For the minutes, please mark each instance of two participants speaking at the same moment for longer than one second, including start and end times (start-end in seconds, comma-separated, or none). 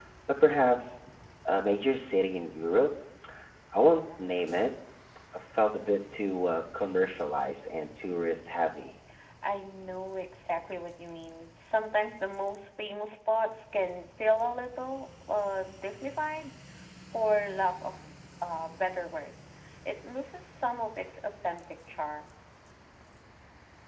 none